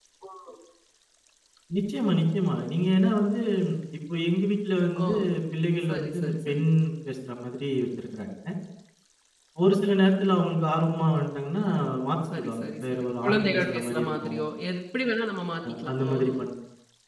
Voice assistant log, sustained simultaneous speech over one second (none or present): present